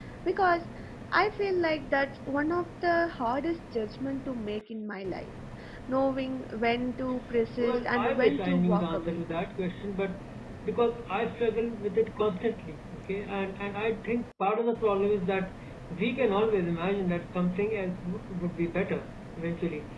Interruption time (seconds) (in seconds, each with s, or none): 7.6 s